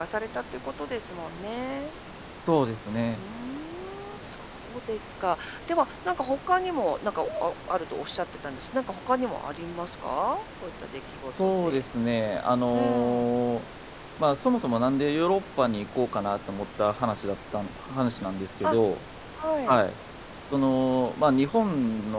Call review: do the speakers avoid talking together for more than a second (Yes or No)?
Yes